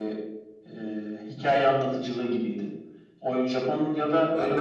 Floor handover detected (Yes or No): Yes